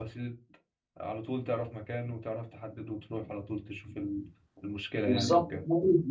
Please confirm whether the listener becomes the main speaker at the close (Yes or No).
Yes